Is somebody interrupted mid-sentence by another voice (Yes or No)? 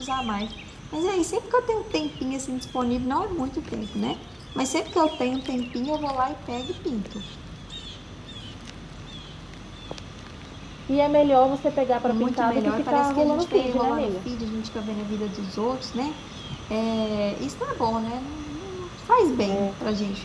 Yes